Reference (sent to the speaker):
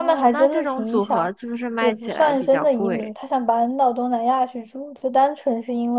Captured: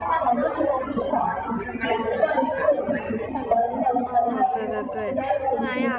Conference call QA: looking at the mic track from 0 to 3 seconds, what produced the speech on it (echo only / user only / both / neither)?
echo only